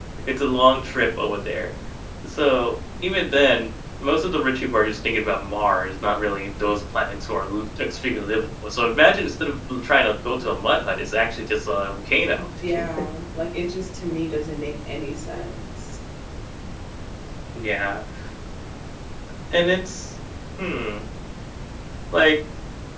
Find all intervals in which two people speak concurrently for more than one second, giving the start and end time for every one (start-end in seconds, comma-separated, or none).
none